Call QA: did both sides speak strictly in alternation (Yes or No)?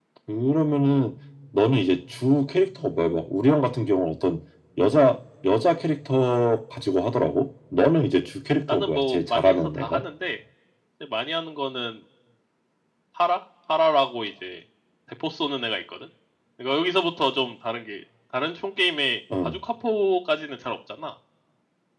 No